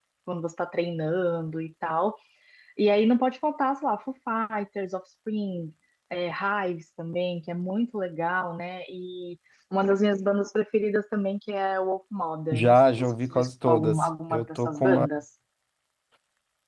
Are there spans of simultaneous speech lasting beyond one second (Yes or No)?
Yes